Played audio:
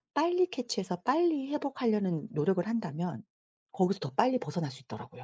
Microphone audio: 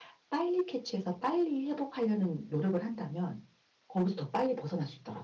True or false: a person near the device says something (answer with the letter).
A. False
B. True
A